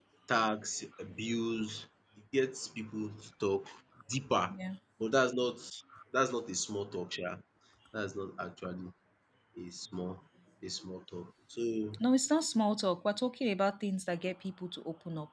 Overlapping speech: No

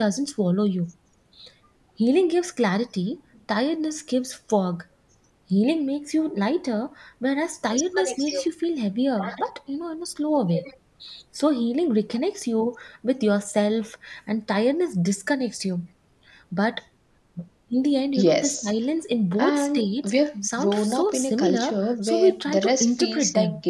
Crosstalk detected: Yes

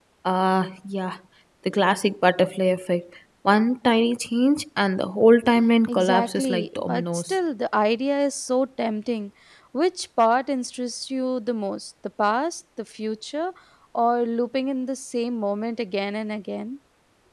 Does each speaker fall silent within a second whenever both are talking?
No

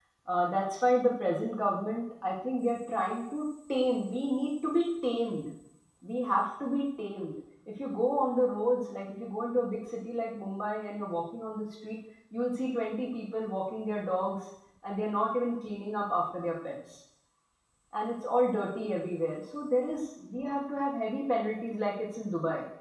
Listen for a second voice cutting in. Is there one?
No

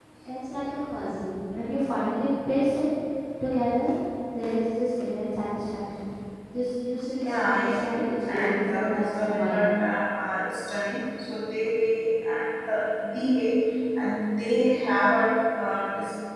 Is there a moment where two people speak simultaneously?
Yes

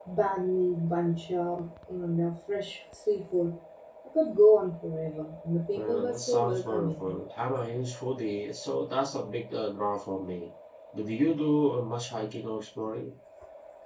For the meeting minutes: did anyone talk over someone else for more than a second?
Yes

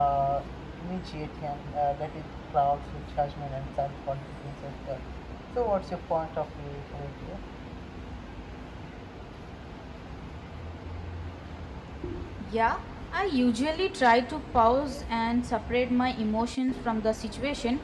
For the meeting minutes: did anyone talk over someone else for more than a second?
No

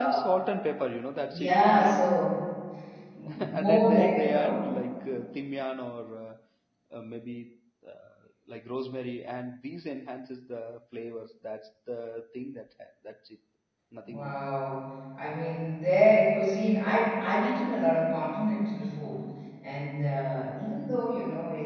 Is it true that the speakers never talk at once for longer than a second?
No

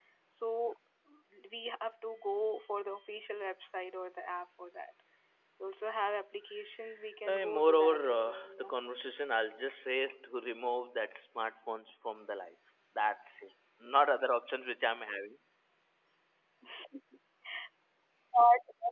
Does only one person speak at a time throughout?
No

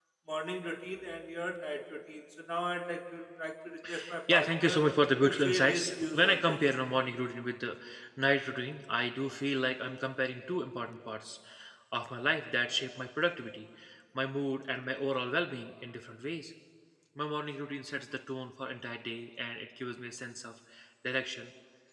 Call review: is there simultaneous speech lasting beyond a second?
Yes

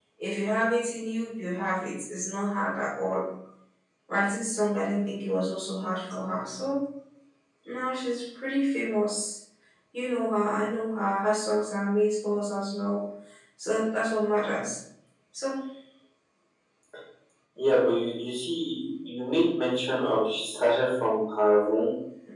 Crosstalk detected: No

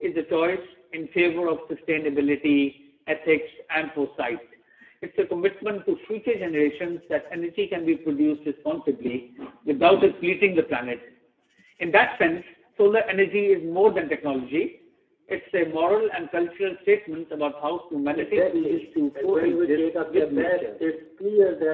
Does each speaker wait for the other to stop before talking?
No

